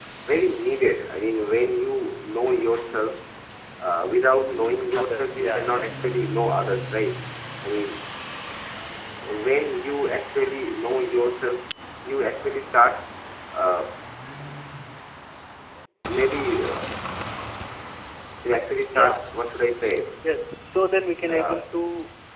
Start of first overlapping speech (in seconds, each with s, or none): 5.0 s